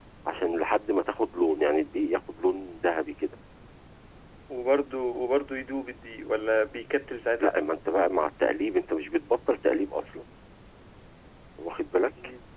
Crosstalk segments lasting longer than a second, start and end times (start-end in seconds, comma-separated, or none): none